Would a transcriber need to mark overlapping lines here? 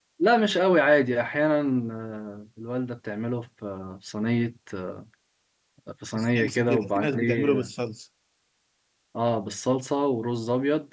Yes, from 6.2 s

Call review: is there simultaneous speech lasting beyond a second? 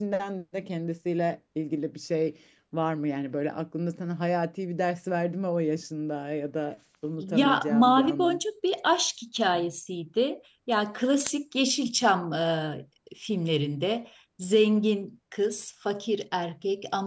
Yes, from 7.2 s

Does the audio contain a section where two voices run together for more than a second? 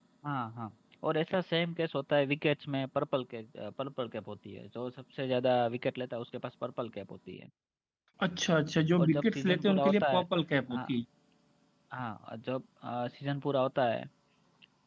Yes, from 9.0 s

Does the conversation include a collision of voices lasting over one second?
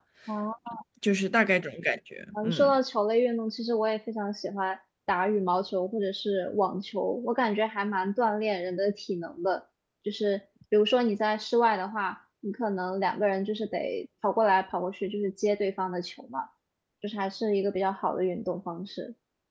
No

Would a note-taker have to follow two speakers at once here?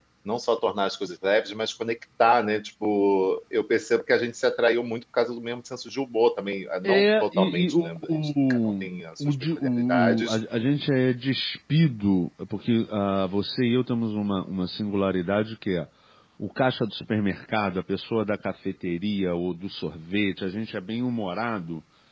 Yes, from 6.8 s

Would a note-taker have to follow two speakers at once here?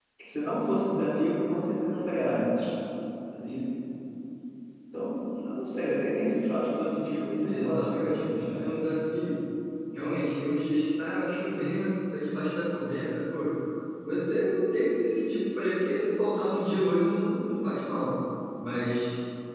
Yes, from 7.5 s

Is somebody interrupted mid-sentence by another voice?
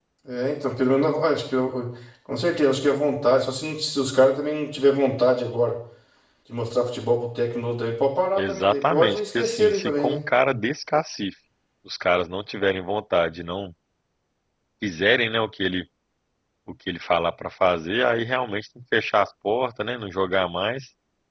Yes, from 8.4 s

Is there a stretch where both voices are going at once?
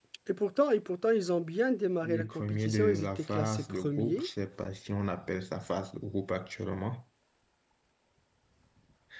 Yes, from 2.0 s

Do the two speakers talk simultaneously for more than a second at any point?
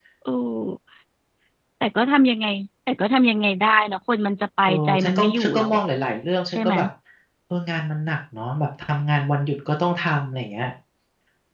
Yes, from 4.7 s

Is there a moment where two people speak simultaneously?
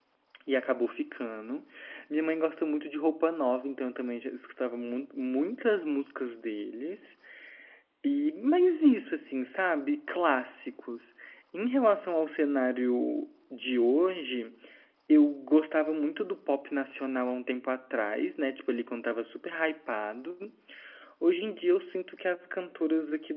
No

